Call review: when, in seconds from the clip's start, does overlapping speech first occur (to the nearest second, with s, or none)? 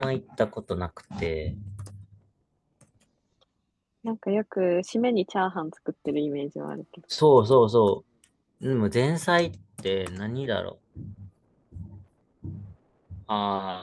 none